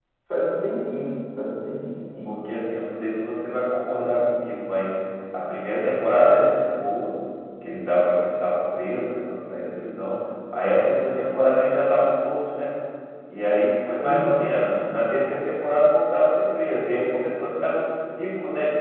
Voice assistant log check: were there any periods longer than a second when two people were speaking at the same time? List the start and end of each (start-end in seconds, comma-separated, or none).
none